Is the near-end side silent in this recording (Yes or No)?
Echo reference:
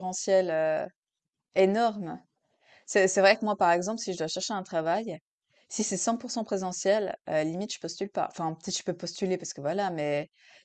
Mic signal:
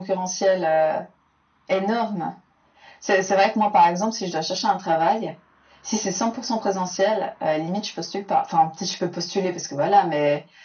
Yes